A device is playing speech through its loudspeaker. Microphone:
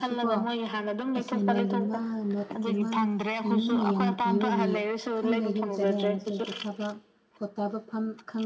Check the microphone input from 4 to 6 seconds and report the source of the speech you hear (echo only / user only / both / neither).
both